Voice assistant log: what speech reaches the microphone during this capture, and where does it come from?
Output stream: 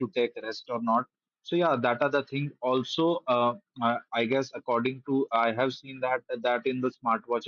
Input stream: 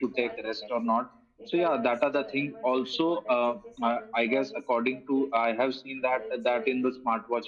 both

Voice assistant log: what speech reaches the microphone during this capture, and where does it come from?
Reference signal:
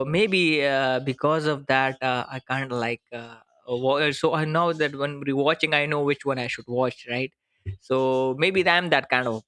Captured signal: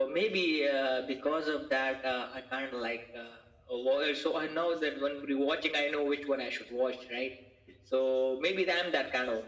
echo only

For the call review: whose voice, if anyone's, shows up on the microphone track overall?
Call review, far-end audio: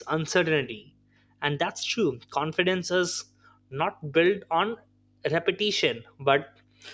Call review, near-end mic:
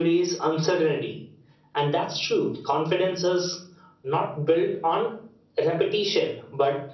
echo only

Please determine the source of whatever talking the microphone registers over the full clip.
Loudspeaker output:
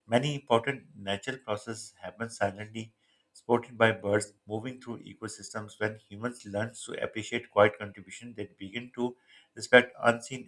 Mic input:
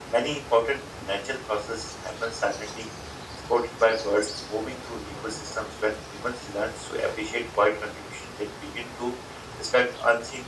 echo only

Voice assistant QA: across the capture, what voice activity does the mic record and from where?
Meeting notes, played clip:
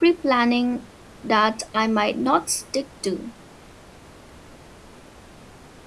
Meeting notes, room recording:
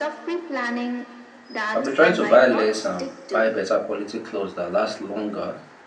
both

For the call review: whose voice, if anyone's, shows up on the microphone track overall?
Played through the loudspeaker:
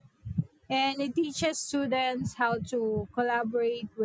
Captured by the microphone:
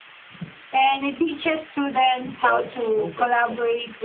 both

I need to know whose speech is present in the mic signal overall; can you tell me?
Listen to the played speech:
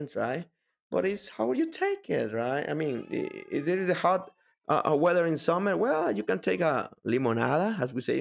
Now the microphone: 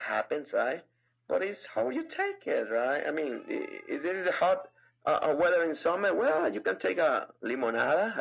echo only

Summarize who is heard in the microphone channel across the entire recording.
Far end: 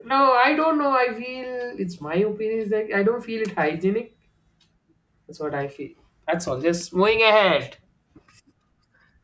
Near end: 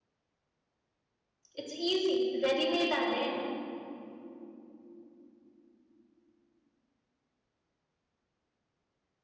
user only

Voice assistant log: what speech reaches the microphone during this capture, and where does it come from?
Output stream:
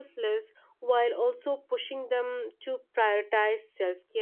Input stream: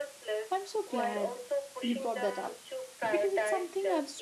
both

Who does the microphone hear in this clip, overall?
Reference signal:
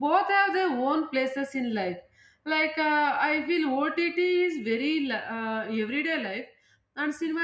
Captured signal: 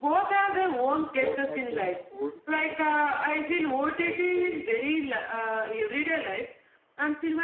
both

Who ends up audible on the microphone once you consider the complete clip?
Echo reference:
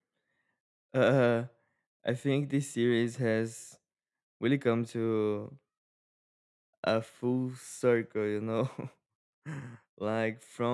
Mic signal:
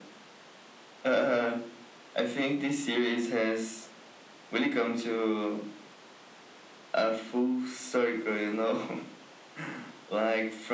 echo only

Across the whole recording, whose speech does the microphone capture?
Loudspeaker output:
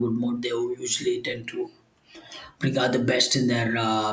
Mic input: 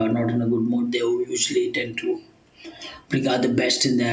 echo only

